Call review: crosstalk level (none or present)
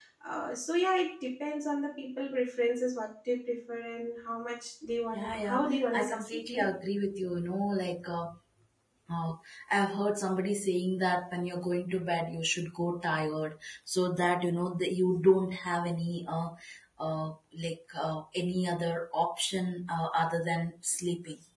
present